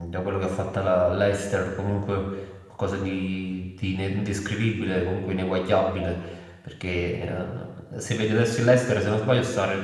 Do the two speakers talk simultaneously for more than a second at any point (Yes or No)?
No